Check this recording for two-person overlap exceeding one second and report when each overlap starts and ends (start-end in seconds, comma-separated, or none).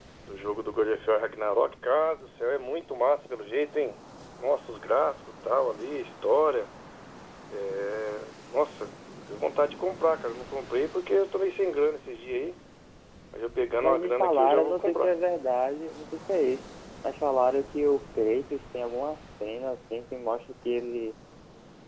13.8-15.1